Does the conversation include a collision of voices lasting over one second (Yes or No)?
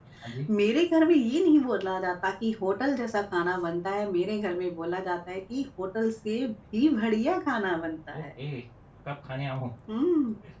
No